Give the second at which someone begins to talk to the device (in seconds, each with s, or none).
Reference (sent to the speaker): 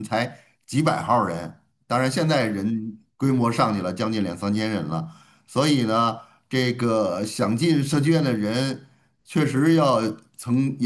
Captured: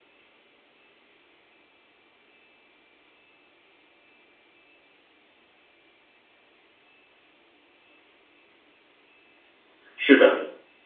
9.9 s